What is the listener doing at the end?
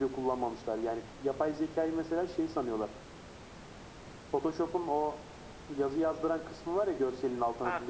taking over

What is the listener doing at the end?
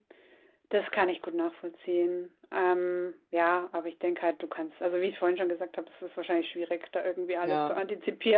listening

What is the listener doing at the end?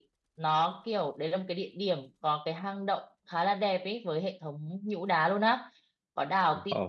listening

